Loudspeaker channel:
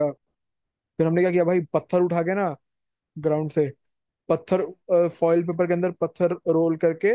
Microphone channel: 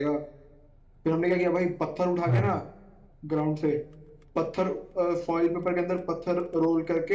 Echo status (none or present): present